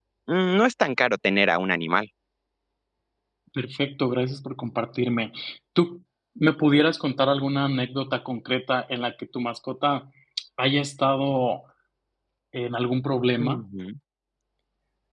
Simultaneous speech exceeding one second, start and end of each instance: none

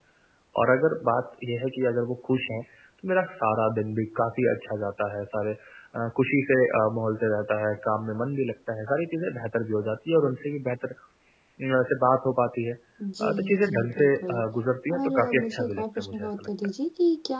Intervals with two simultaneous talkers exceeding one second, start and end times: 13.2-14.4, 14.9-16.5

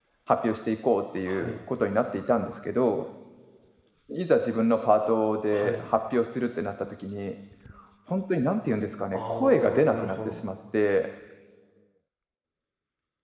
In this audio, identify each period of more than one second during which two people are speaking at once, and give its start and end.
9.1-10.4

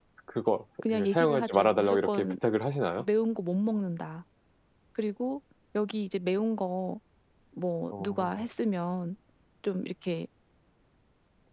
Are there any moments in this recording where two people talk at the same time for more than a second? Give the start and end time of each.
0.9-2.4

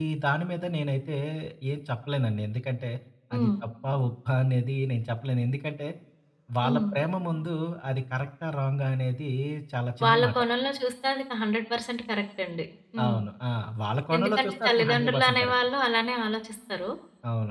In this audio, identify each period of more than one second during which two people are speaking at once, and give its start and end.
14.2-15.5

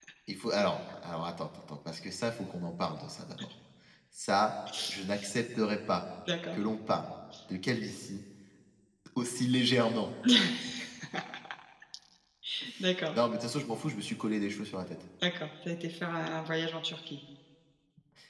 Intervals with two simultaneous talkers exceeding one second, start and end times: none

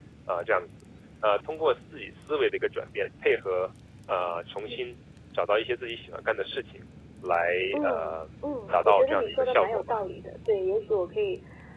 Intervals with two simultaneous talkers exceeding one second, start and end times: 8.7-10.0

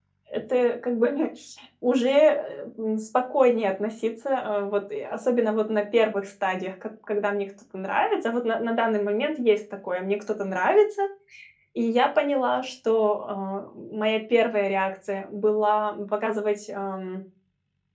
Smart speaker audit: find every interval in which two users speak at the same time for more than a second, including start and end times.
none

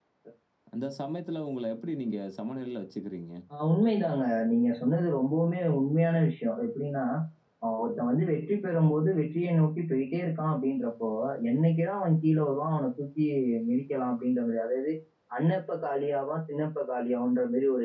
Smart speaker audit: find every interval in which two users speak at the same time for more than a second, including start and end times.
none

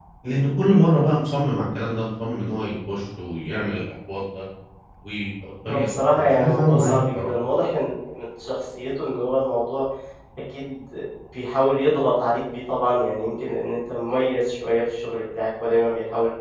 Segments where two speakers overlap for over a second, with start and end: 5.7-7.3

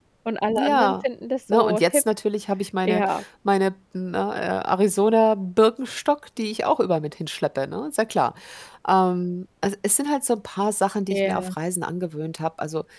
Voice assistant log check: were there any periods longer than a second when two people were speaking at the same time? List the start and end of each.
none

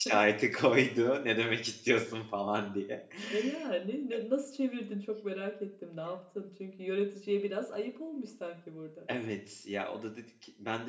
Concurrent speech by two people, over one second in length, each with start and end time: none

